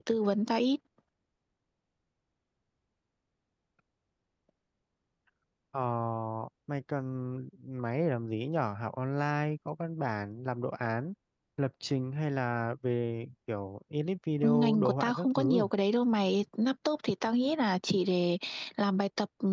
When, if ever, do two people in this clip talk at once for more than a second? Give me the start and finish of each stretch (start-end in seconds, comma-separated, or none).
14.4-15.6